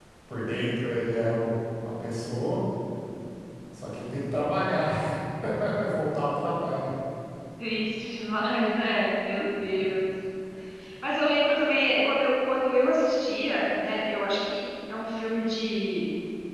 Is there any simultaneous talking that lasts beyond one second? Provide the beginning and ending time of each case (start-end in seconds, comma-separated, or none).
none